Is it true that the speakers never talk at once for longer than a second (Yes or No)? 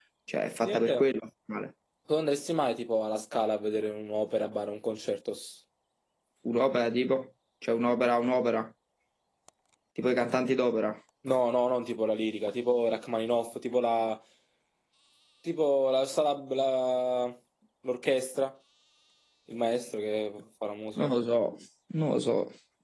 Yes